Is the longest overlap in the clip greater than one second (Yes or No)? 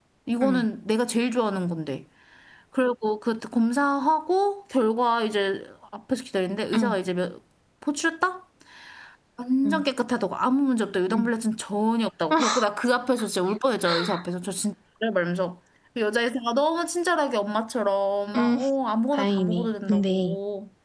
Yes